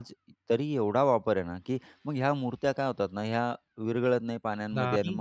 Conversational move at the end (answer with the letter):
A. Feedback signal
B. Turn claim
A